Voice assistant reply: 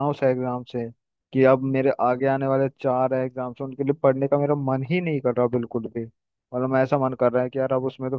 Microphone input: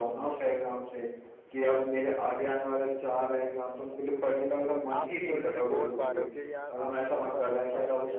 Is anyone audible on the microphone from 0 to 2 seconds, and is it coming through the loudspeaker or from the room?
echo only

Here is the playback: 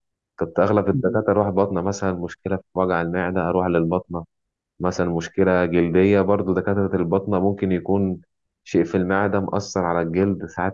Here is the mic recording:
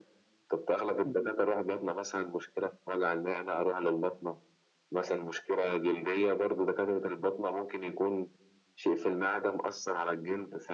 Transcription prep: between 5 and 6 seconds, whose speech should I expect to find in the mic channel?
echo only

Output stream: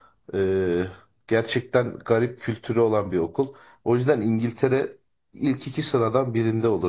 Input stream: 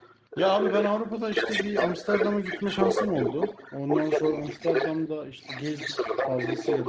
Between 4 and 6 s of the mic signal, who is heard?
both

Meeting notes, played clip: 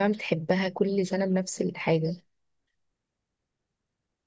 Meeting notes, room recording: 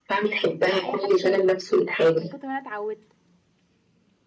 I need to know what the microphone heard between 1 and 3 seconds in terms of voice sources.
both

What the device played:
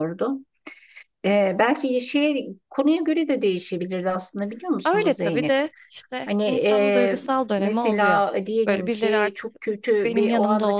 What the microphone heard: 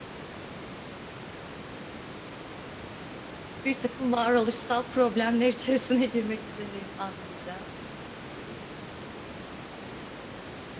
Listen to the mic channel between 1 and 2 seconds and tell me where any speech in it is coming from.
neither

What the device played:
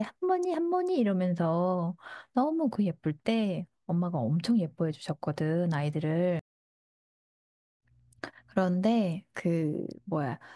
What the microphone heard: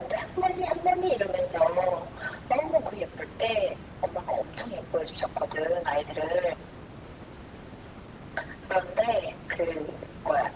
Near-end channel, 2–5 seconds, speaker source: echo only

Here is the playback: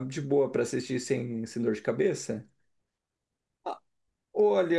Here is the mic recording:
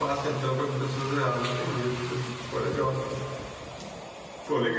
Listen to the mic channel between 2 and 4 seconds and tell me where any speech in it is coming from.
user only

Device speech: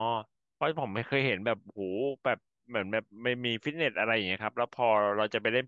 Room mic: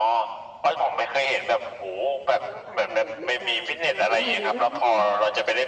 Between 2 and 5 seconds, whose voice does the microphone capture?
both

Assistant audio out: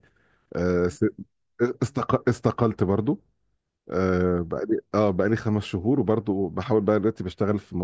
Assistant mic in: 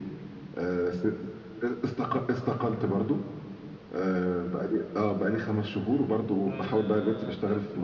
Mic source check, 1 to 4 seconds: echo only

